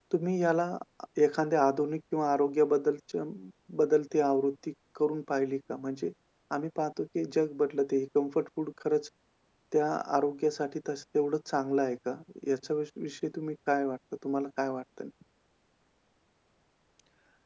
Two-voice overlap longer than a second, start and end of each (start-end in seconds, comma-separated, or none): none